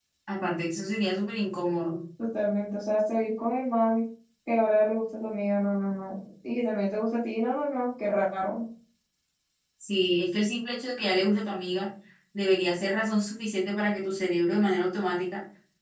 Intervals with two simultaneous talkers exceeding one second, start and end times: none

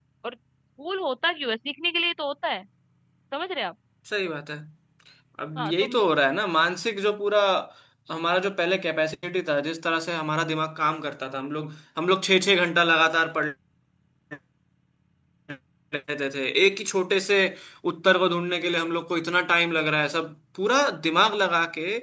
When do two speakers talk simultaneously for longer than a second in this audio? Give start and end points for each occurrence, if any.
none

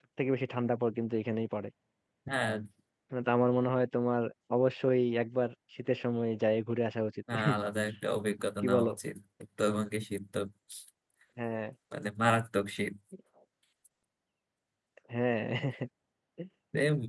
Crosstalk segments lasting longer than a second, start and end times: none

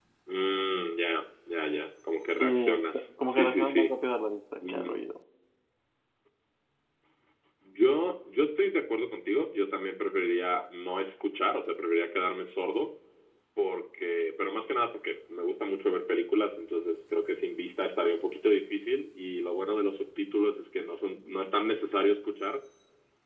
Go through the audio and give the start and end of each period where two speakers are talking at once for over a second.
2.4-3.9

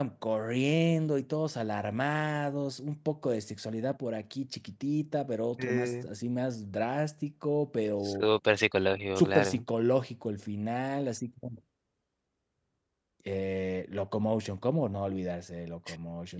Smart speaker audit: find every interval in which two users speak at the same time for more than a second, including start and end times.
none

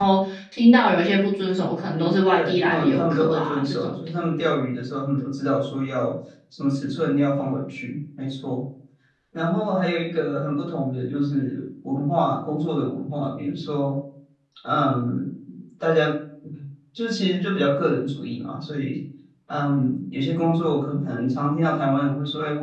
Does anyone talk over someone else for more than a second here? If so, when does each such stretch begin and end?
1.9-3.9

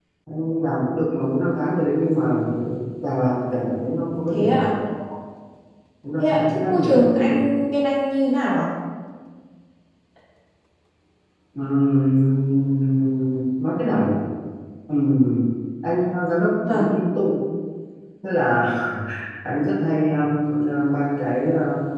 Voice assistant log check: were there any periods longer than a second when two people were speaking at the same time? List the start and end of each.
6.2-7.4

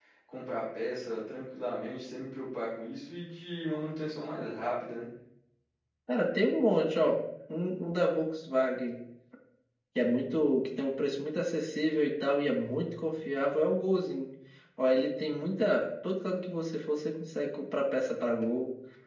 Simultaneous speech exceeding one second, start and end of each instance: none

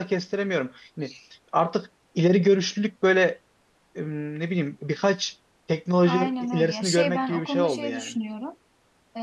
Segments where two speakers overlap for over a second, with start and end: 6.0-8.1

